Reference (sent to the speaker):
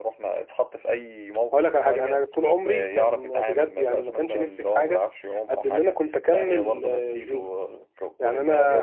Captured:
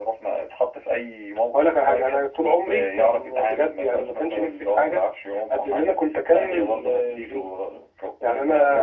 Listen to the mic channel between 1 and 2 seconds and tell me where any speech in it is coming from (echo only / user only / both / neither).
echo only